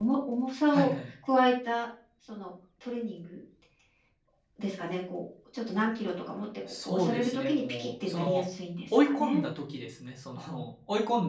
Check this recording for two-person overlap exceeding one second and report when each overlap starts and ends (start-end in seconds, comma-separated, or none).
6.7-8.4